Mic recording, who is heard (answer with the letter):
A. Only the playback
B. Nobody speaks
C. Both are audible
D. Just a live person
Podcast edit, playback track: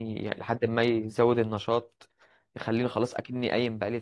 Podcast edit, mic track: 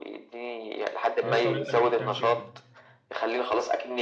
C